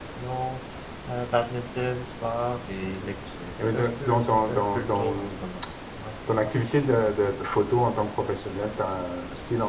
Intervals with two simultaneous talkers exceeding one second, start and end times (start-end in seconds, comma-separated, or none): 3.7-5.3